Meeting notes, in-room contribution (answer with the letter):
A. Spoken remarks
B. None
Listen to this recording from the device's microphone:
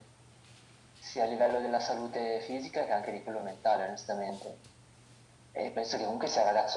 B